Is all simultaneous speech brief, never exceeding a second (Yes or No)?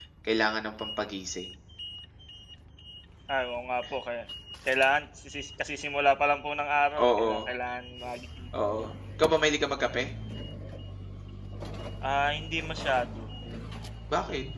Yes